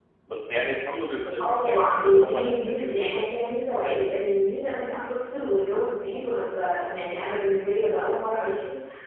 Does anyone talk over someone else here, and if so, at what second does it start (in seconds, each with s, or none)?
1.4 s